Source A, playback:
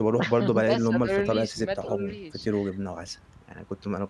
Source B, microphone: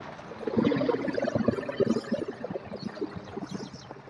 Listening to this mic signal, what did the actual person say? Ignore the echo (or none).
امم.